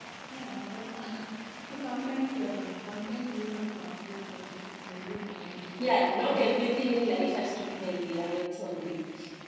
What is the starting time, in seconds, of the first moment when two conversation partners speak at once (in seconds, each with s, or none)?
5.8 s